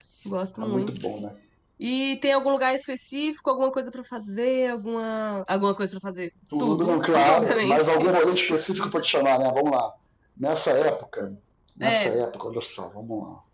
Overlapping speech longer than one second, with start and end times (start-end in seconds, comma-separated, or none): 6.6-7.9